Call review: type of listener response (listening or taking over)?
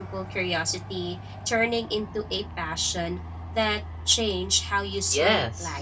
taking over